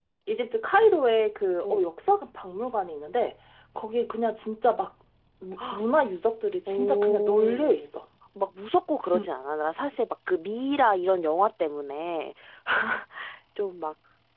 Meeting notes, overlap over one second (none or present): present